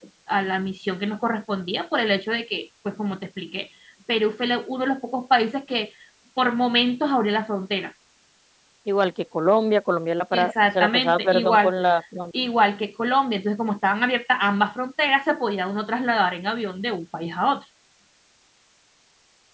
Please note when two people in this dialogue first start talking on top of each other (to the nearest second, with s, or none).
10 s